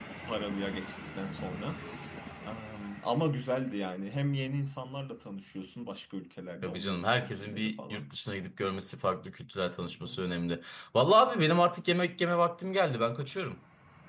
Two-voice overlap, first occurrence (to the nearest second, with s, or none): 7 s